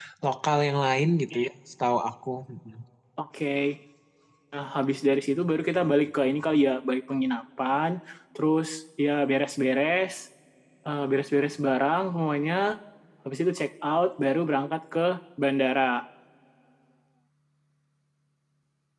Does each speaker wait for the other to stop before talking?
Yes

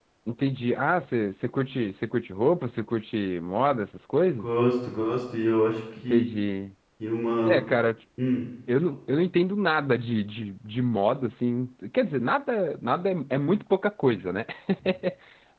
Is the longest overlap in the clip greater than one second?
No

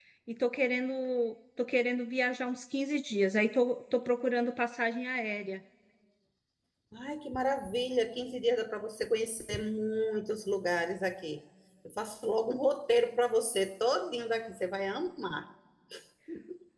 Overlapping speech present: No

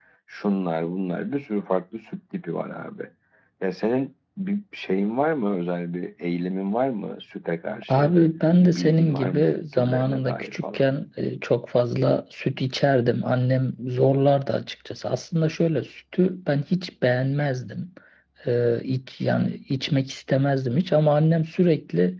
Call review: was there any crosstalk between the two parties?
Yes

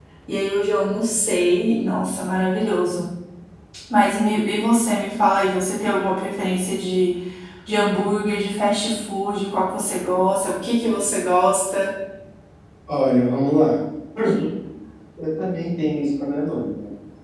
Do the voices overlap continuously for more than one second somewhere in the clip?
No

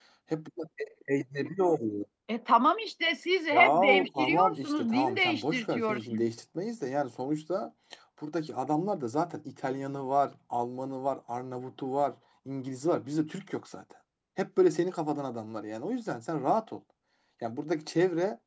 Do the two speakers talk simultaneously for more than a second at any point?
Yes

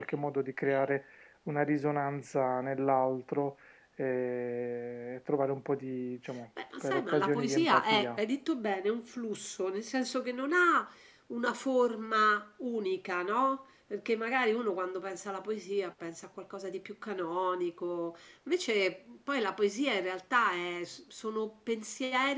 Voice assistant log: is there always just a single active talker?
No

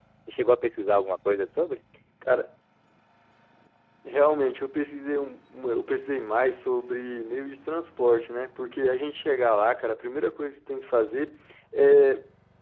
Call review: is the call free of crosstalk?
Yes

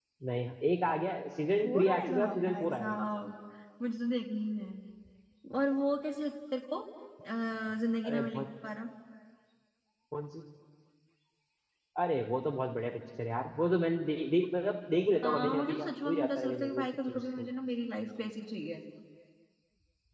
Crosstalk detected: Yes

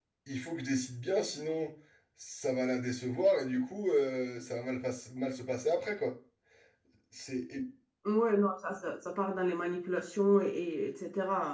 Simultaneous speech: No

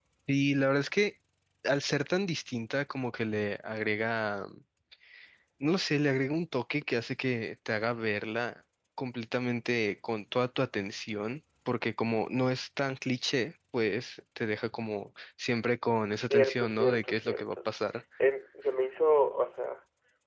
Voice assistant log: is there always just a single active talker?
No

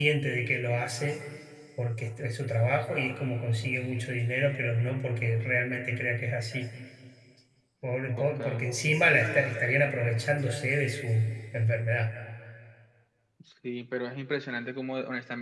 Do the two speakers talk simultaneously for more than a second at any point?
No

